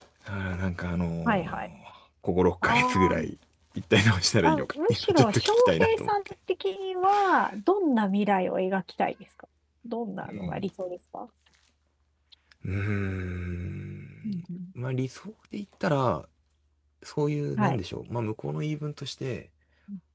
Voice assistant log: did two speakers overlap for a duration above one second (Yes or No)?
Yes